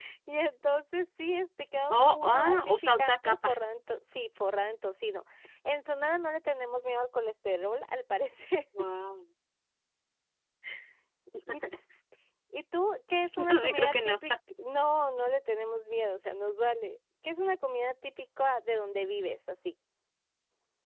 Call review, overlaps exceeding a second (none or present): present